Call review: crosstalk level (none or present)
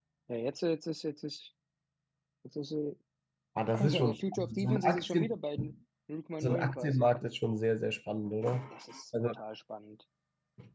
present